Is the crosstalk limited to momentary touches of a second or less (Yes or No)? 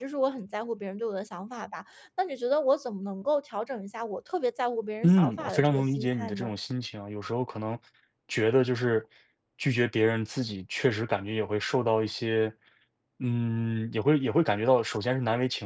No